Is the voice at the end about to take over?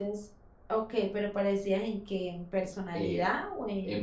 Yes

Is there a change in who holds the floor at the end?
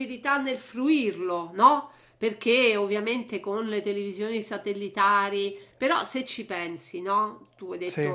No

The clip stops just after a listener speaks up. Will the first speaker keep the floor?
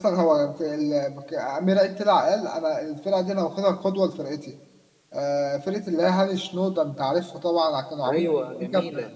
Yes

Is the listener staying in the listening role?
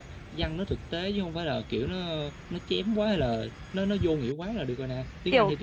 No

